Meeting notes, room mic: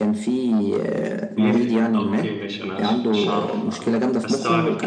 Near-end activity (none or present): present